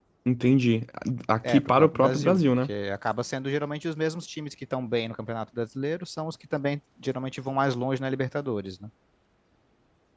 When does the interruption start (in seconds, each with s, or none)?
1.5 s